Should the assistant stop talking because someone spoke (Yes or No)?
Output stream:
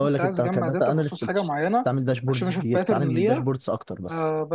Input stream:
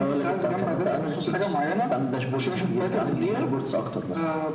No